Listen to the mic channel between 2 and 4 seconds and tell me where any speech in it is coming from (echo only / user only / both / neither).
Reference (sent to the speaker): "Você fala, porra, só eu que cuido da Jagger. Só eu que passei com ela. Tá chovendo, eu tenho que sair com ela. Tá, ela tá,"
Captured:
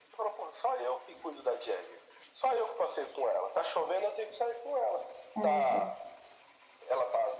echo only